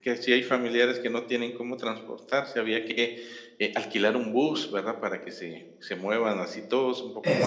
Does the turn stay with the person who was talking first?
Yes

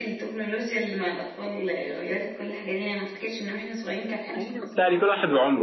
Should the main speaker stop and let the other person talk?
Yes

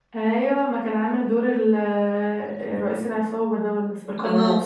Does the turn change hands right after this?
Yes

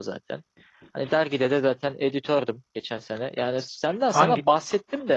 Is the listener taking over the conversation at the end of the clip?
No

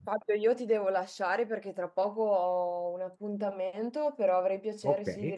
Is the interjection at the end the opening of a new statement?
No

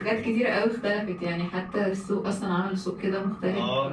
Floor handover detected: Yes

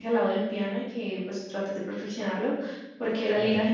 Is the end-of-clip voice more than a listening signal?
No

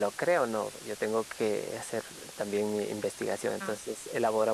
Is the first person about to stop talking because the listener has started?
No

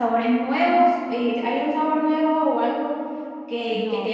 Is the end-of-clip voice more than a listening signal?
No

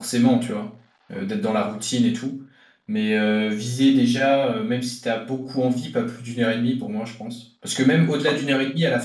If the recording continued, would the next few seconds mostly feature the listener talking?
No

